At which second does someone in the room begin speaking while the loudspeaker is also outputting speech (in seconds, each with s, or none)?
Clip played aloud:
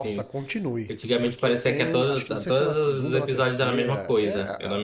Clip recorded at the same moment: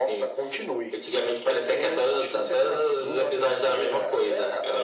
none